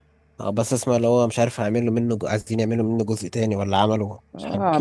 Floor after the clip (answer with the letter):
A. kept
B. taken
B